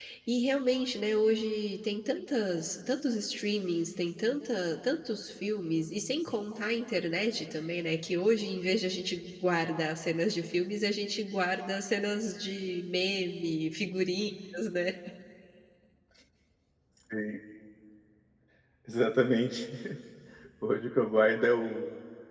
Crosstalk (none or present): none